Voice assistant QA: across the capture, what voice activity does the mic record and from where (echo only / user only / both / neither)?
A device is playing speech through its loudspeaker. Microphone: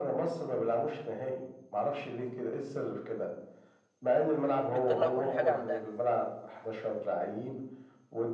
both